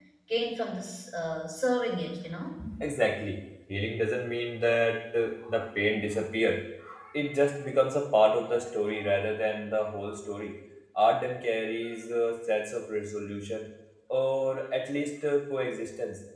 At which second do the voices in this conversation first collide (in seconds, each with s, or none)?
none